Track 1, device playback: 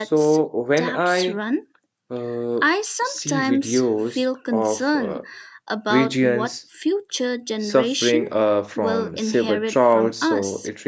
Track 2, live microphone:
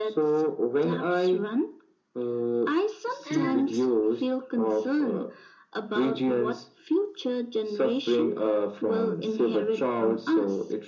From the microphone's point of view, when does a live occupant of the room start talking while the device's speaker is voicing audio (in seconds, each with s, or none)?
3.2 s